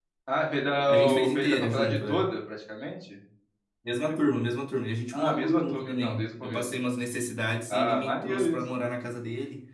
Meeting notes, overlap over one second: present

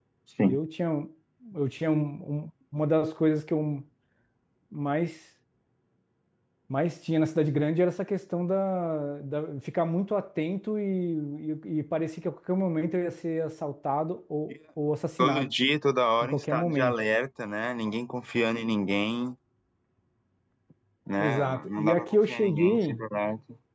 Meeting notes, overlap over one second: present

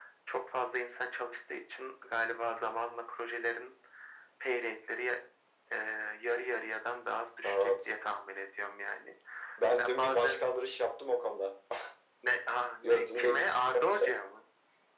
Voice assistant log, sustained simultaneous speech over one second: present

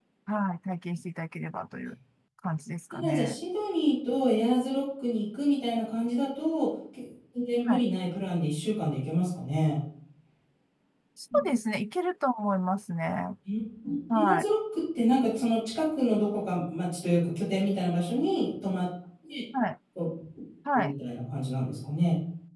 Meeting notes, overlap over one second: none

